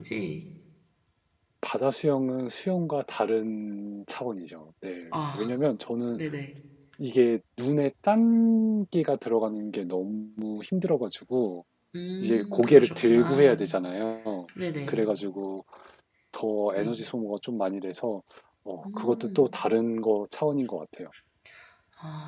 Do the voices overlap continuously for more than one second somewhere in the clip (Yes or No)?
Yes